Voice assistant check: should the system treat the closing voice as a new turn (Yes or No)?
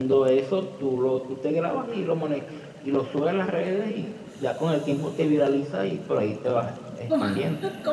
Yes